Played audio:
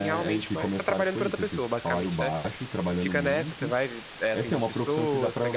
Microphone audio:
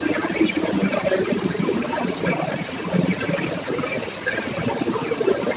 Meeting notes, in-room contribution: none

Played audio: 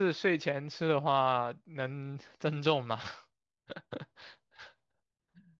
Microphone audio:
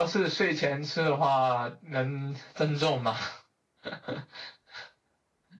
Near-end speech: none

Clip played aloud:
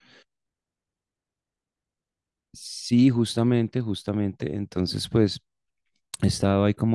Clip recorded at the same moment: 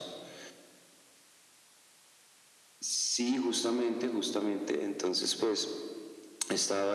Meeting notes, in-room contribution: none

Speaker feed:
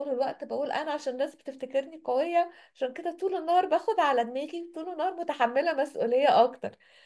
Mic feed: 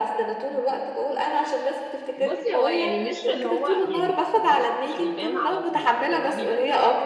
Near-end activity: present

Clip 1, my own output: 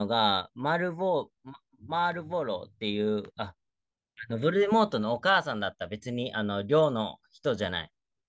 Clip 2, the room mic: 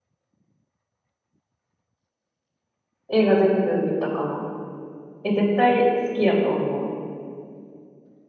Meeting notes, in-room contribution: present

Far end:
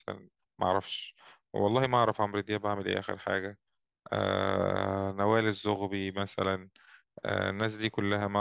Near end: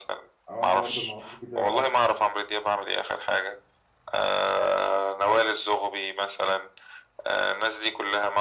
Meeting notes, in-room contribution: present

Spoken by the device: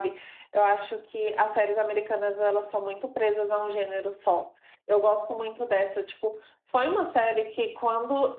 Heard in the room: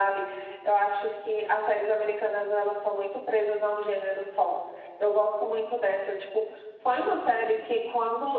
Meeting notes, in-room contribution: none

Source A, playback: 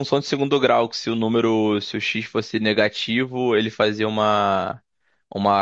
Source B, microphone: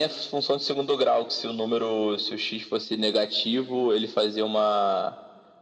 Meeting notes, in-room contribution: none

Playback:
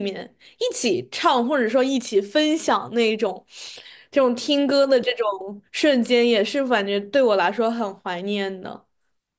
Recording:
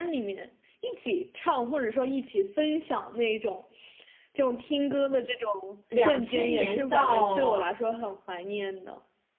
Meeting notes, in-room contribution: present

